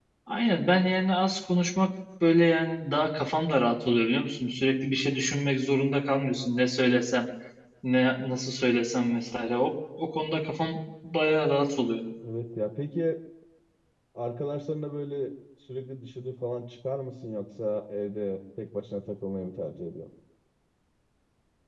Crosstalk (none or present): none